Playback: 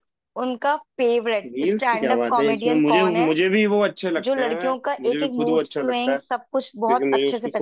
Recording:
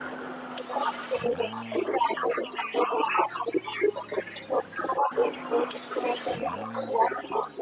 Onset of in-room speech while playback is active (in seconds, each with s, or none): none